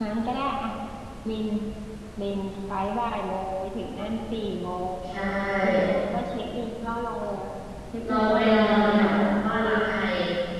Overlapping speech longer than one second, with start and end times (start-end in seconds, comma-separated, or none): 8.1-9.3